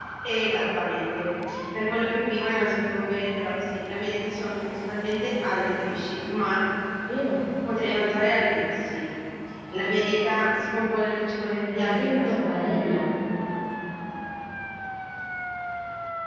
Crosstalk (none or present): present